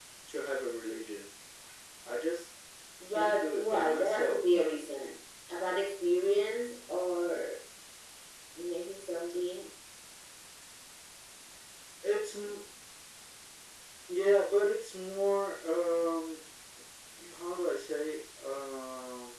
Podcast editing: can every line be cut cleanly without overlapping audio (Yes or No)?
No